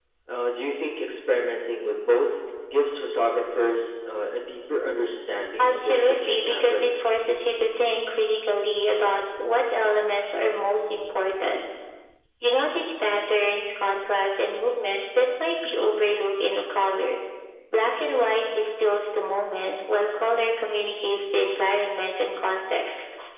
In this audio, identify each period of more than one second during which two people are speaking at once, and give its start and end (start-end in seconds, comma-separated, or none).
5.6-6.8